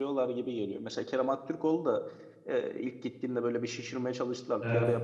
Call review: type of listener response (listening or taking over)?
listening